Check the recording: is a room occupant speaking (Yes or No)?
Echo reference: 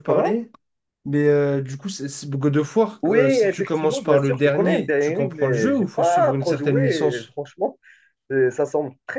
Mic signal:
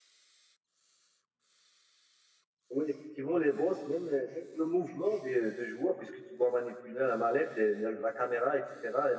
Yes